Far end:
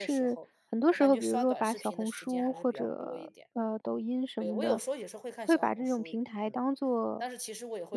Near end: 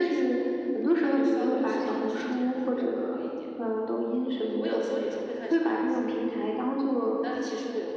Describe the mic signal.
echo only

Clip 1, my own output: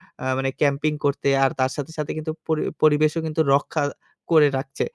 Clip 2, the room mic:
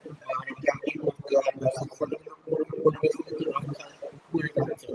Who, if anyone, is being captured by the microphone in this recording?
echo only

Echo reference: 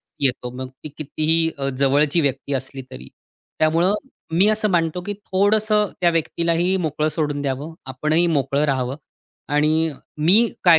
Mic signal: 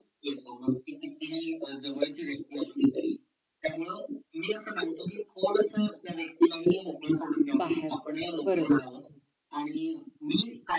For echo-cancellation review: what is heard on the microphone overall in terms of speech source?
both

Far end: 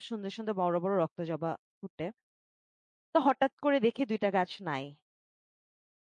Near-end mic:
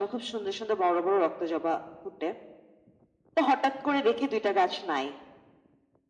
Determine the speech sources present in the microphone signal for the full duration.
echo only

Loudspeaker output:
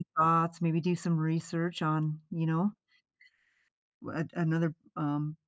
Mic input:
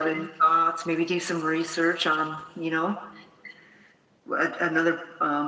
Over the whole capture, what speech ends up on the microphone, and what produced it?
echo only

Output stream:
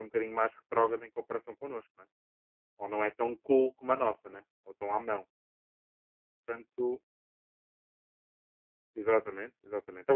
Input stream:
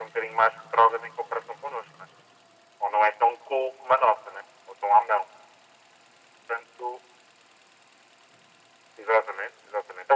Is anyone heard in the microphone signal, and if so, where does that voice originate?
echo only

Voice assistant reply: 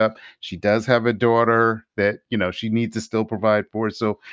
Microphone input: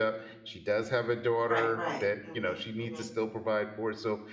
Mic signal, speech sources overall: both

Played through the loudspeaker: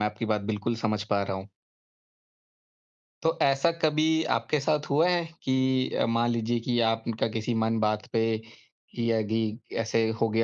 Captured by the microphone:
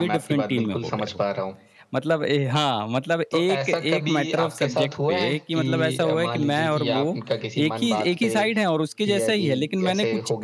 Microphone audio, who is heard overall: both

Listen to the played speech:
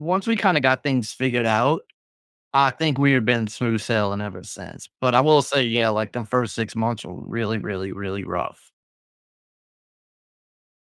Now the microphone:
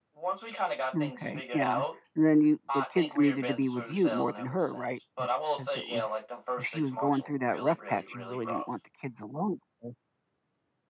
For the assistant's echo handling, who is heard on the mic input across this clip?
both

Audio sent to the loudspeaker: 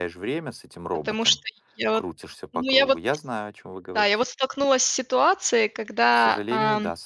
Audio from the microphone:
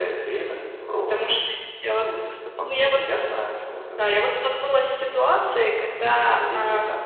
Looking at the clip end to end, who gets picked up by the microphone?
echo only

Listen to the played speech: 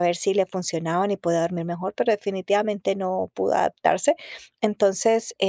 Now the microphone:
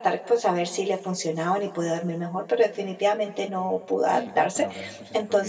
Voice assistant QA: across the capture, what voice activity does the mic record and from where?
both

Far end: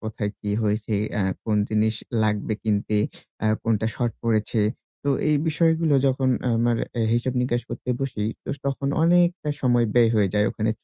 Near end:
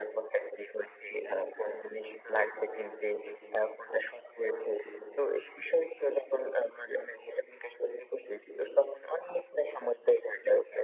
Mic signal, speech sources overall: echo only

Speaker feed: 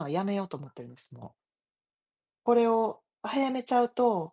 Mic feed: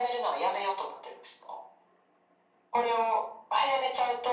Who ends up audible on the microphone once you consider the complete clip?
echo only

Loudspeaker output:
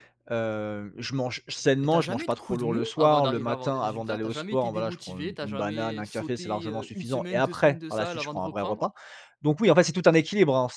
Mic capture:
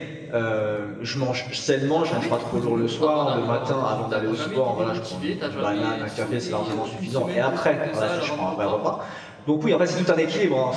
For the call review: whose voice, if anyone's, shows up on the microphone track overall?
echo only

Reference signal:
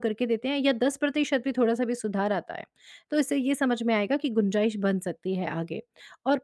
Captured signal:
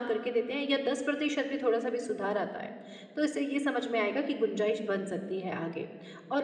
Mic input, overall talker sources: echo only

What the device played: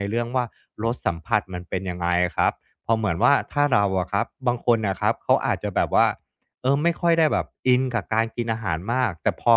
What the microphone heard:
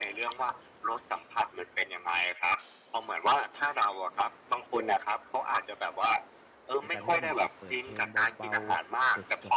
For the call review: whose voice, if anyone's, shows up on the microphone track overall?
both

